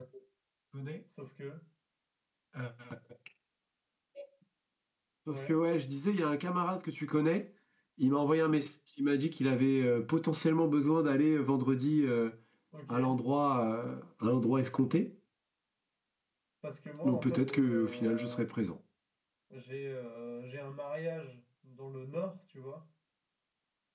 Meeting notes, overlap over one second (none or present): present